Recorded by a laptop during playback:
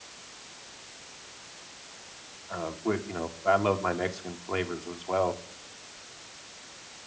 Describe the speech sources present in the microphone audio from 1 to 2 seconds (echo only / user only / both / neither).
neither